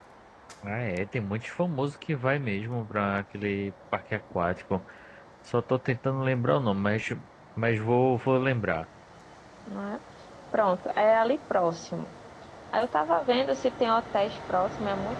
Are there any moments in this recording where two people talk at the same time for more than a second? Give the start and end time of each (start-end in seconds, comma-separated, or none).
none